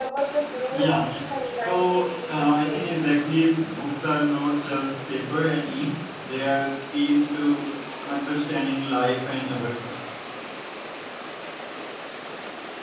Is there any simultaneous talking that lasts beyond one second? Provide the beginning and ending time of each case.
0.7-2.8

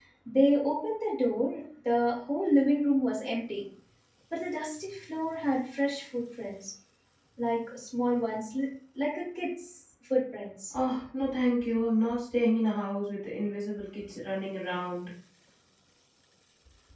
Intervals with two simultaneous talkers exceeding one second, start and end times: none

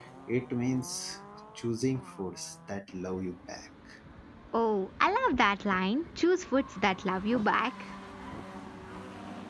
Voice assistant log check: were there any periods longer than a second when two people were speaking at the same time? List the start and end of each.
none

